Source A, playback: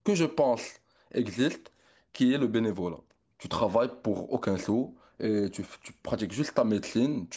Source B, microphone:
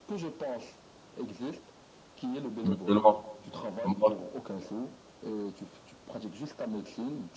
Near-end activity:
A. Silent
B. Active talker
B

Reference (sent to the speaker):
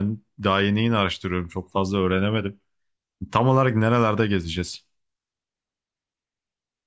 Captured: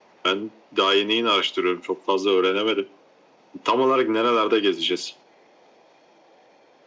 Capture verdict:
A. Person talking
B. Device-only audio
B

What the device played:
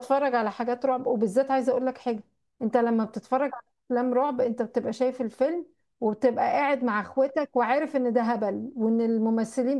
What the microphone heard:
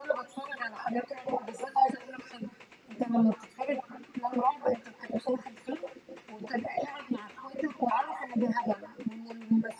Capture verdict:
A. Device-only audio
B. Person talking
A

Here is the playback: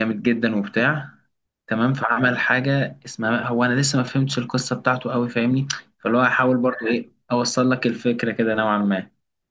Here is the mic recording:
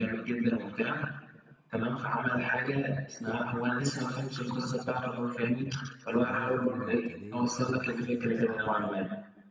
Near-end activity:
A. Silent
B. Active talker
B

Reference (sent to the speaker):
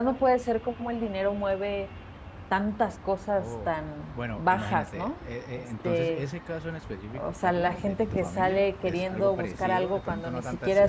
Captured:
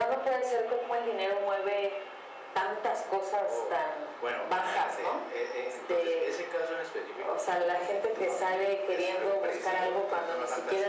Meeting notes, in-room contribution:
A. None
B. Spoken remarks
A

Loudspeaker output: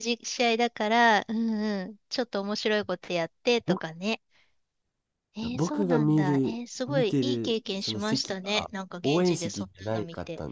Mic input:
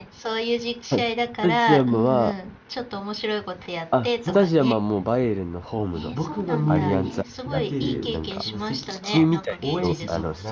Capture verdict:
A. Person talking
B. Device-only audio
A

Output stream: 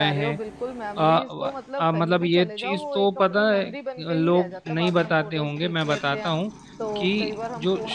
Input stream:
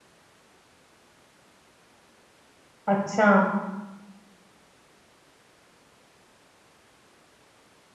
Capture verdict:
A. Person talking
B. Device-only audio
A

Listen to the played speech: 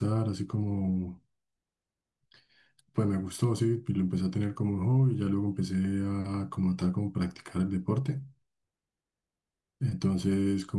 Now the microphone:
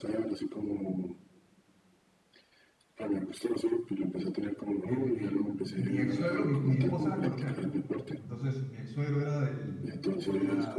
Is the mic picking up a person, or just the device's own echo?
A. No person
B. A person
B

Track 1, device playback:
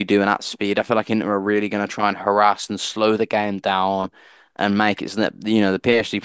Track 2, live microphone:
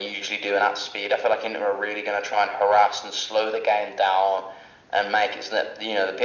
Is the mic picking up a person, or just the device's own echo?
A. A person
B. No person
B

